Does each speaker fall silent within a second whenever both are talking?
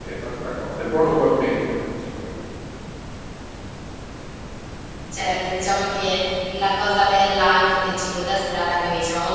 Yes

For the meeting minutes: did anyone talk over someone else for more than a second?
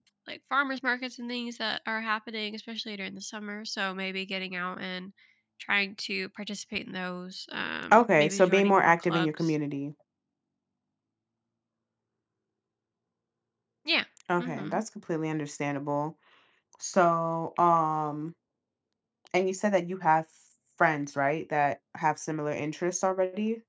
Yes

